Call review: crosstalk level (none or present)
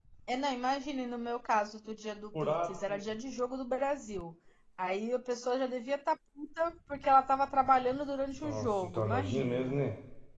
present